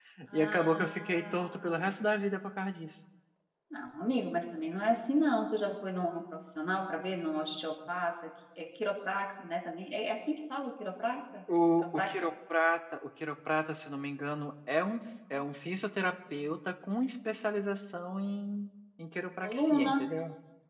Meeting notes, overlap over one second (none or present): present